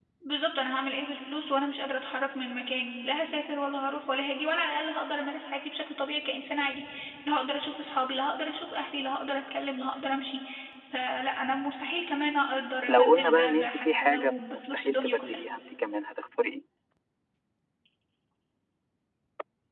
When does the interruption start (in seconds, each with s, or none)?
12.9 s